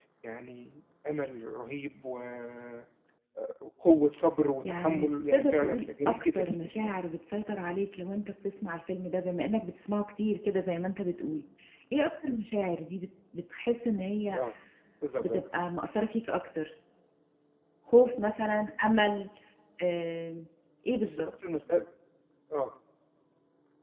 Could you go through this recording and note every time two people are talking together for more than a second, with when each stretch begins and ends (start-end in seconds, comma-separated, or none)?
4.7-6.9